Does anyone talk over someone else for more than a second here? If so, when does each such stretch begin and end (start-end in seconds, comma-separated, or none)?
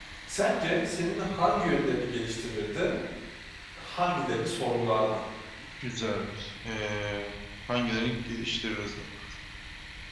none